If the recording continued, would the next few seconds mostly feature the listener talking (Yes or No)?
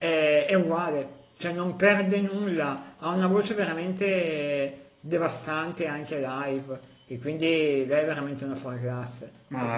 Yes